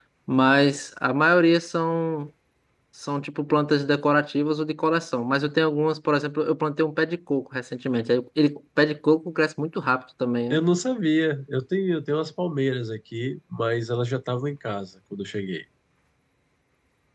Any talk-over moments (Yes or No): No